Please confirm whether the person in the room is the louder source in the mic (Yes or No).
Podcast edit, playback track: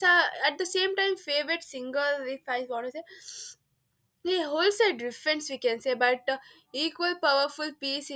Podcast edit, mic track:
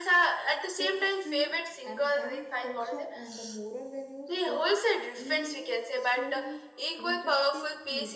No